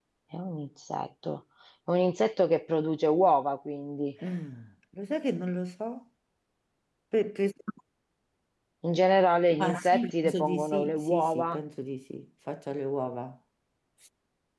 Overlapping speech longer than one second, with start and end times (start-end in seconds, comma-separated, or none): 9.6-11.6